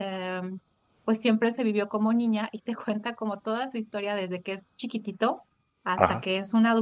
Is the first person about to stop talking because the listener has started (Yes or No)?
No